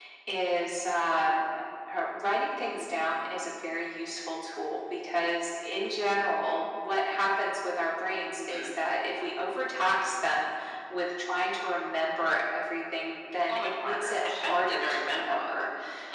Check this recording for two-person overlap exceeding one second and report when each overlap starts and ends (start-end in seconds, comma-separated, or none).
13.5-15.6